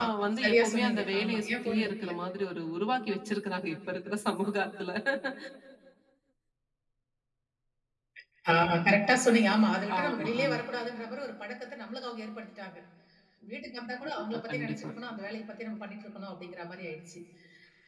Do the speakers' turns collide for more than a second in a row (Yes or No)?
Yes